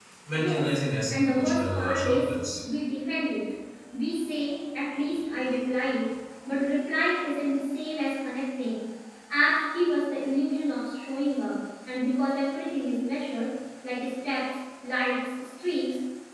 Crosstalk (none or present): present